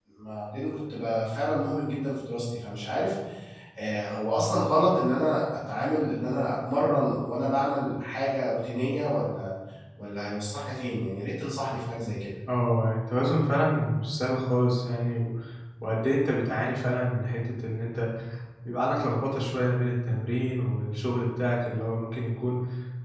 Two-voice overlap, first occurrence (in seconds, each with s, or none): none